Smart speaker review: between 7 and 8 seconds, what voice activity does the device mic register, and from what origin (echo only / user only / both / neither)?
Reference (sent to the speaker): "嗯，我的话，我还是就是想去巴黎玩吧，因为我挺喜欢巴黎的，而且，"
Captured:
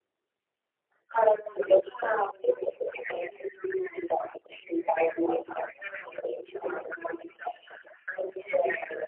echo only